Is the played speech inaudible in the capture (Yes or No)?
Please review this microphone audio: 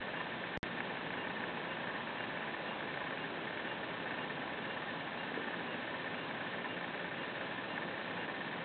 Yes